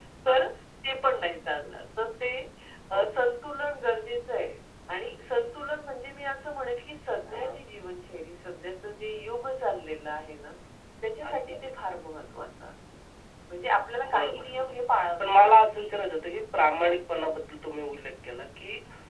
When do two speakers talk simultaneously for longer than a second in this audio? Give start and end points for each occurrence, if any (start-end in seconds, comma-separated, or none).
14.1-15.5